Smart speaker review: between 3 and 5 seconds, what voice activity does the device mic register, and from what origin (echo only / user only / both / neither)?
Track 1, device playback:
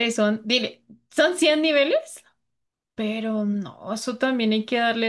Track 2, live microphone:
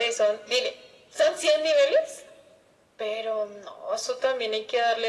echo only